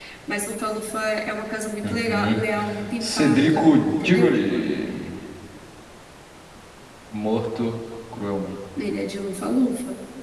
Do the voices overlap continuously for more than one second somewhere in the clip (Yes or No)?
Yes